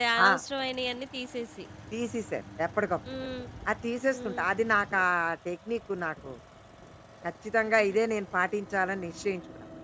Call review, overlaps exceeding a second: none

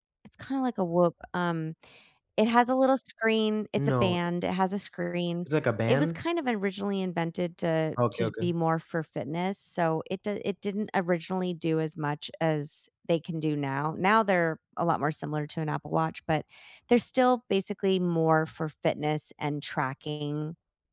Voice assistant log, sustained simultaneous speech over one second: none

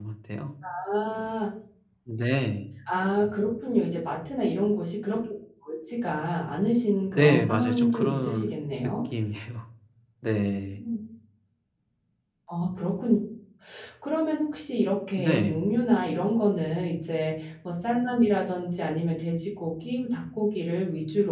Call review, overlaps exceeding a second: present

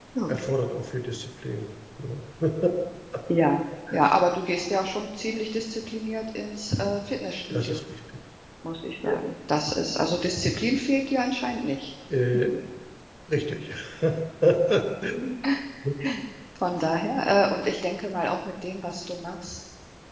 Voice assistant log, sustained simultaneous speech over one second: none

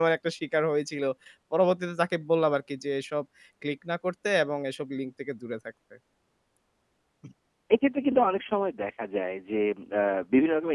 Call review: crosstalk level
none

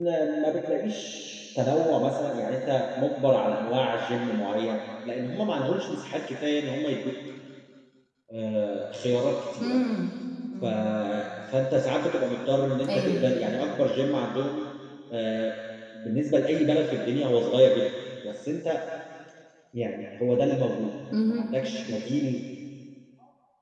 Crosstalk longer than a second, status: none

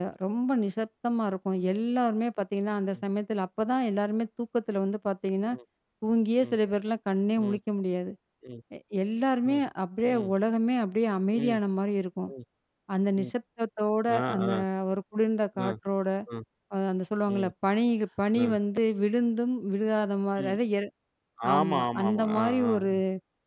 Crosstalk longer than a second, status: present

